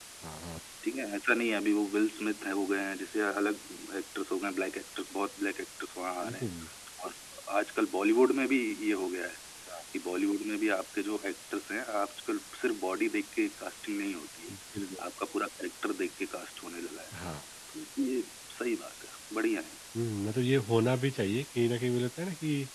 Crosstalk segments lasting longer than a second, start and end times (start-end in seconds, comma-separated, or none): none